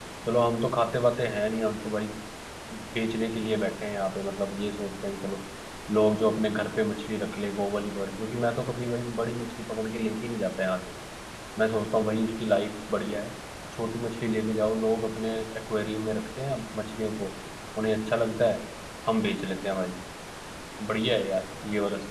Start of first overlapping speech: none

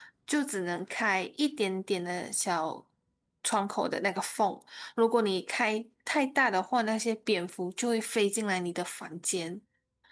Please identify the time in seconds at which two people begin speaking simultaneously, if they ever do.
none

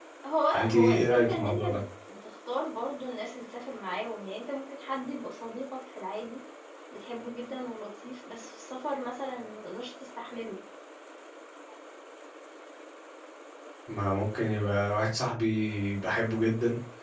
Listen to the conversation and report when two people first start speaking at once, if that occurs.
1 s

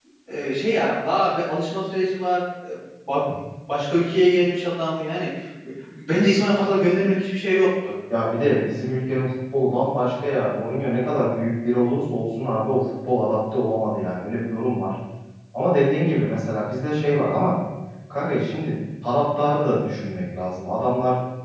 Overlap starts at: none

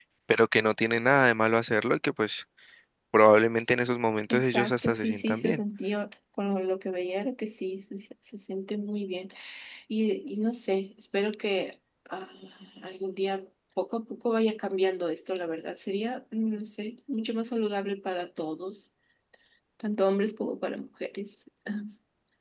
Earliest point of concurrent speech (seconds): 4 s

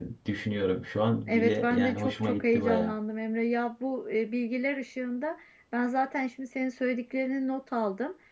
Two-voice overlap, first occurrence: 1 s

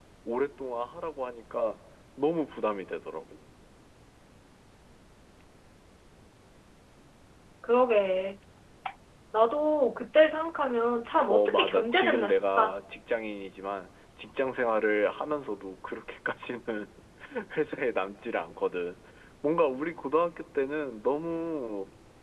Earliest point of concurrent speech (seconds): 11 s

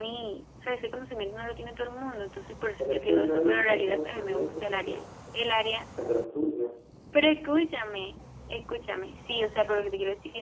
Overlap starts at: 3 s

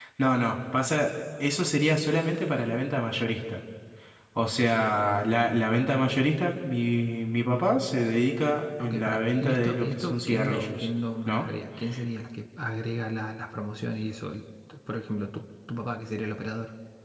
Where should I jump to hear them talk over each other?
9 s

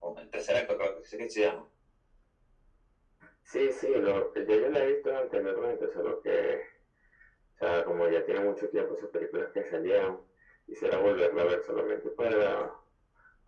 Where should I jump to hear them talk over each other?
none

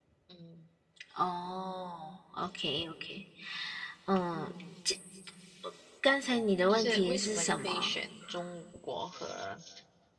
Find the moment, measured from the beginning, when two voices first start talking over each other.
7 s

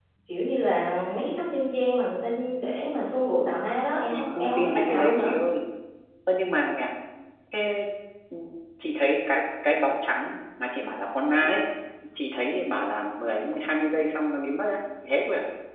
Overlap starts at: 4 s

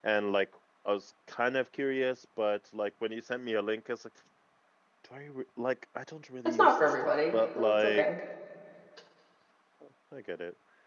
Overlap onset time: 6 s

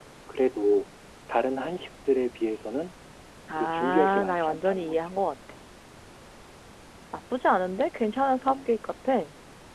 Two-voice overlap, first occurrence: 4 s

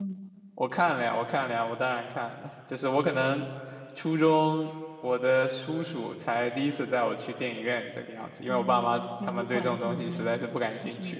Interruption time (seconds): 8 s

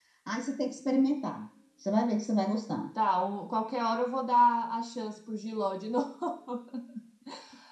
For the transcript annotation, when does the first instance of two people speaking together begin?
none

